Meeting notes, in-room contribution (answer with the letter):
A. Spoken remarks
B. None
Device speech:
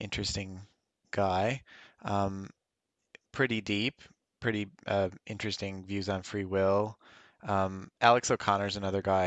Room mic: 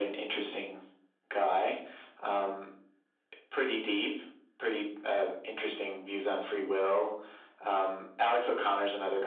B